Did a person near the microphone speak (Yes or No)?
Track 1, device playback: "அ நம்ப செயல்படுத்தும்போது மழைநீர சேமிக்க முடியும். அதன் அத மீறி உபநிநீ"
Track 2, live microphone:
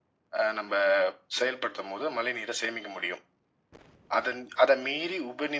No